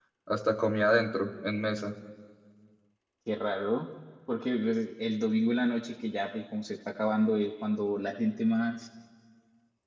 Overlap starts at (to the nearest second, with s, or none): none